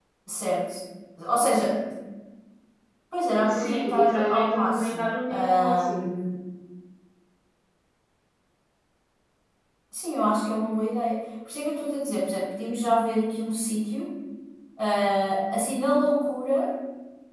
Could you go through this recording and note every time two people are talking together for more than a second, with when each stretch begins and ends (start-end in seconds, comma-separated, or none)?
3.5-6.1